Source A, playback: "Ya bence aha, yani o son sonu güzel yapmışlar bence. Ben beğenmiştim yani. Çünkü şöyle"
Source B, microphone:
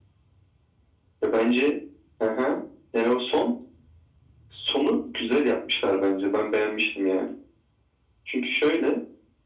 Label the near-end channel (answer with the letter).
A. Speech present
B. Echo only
B